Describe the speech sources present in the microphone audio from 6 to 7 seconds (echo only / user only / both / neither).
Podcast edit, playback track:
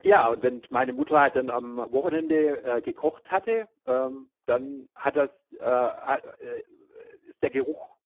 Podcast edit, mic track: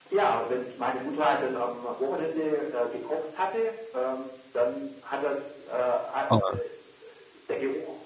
both